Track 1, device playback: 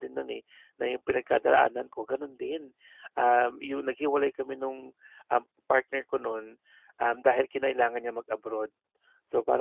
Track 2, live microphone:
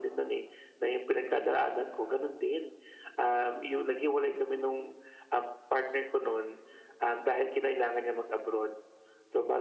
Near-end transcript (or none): none